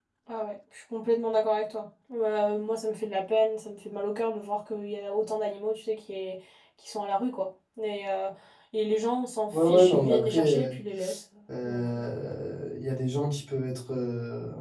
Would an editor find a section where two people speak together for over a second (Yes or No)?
Yes